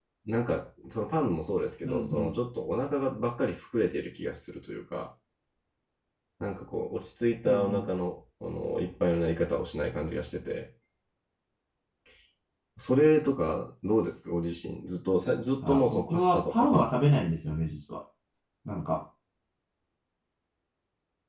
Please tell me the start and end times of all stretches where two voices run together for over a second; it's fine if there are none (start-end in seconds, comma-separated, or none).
15.6-16.9